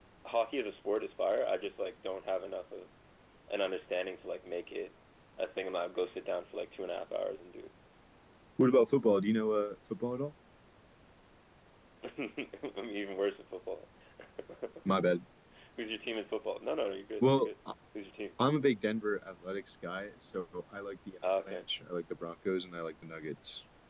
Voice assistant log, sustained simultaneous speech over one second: none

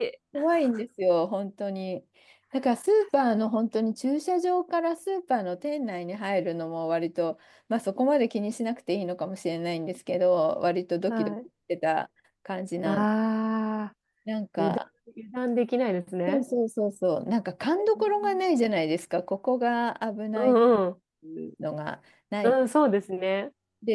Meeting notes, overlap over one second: none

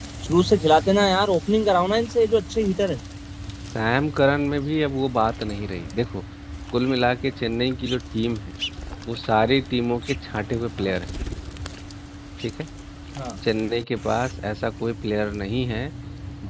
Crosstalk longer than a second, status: none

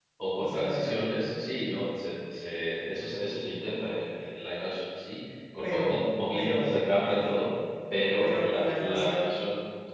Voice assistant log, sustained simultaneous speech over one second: present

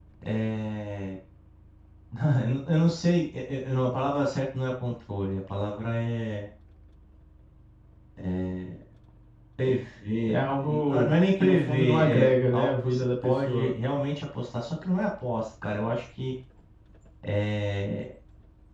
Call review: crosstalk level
present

